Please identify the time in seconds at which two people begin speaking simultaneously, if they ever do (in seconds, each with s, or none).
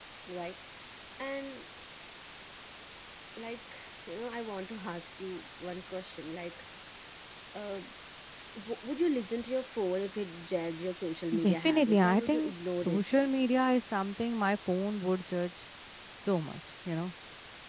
11.3 s